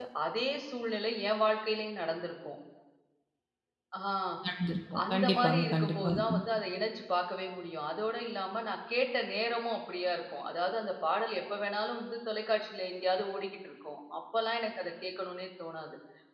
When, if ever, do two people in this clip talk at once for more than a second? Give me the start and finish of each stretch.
5.1-6.4

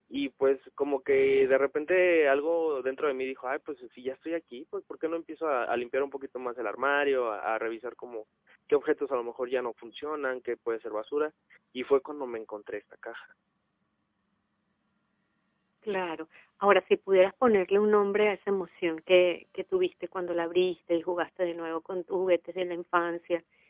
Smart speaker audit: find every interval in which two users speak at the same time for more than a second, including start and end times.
none

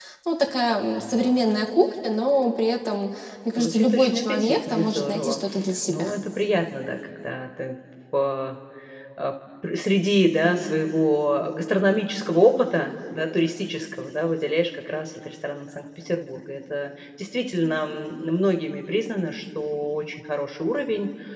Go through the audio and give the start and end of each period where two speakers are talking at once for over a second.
3.6-5.4

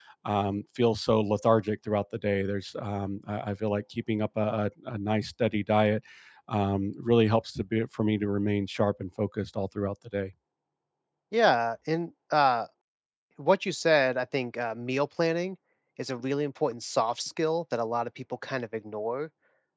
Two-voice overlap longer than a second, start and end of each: none

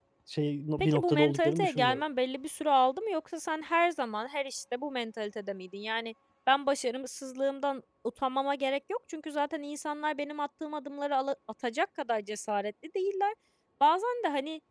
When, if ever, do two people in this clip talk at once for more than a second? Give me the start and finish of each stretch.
0.8-2.0

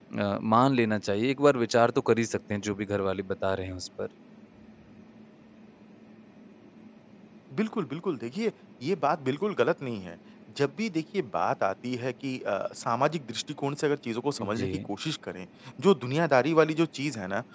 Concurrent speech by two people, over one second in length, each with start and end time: none

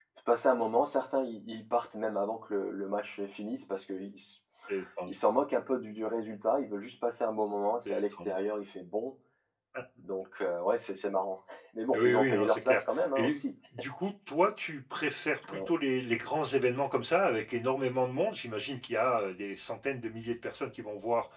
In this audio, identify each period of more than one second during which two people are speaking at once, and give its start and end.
11.9-13.4

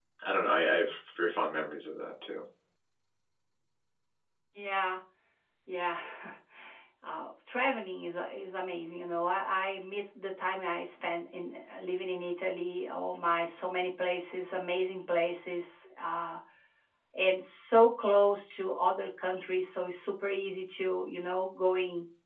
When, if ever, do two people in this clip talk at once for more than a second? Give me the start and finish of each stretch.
none

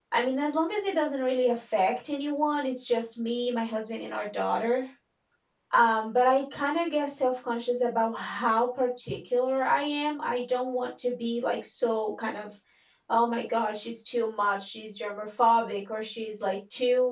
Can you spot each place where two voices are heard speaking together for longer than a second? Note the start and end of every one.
none

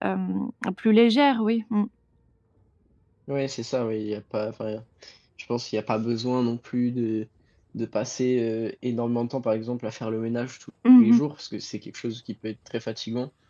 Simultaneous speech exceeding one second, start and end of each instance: none

